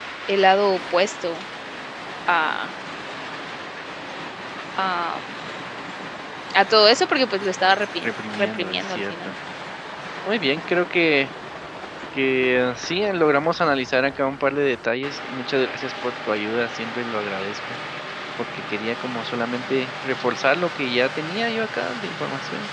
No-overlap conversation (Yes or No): No